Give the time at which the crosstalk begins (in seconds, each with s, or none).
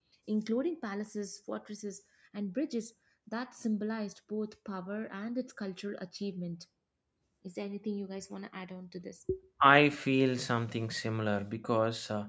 none